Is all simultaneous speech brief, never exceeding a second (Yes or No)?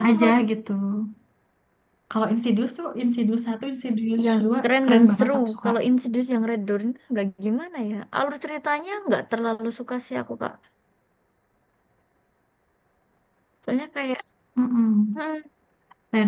No